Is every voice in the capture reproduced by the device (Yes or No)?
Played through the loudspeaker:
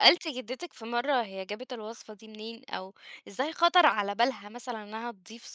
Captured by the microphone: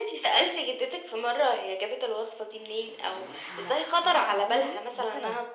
No